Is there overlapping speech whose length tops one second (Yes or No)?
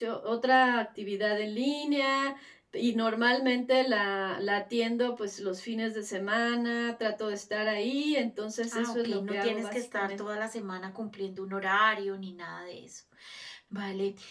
Yes